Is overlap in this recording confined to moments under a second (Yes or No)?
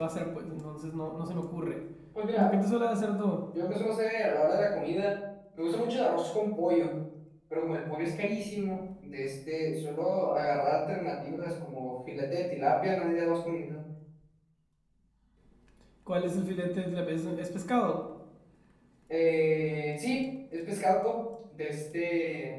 Yes